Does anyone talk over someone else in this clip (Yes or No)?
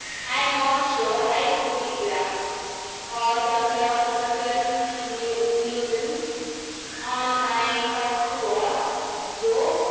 No